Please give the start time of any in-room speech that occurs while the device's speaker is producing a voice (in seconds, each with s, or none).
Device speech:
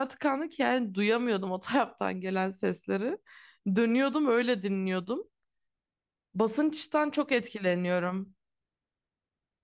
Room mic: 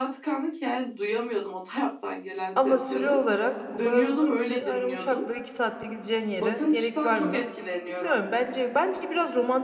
2.6 s